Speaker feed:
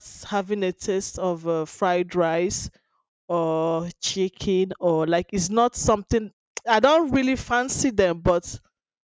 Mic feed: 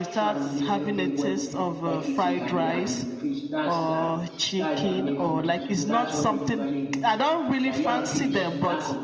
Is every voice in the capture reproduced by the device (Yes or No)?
No